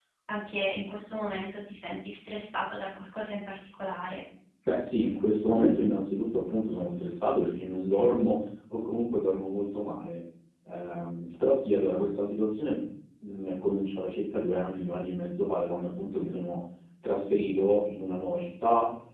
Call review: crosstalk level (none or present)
none